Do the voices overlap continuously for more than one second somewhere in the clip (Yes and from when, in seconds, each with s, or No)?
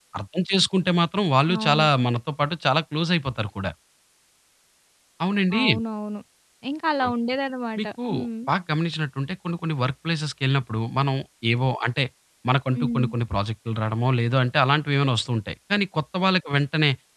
No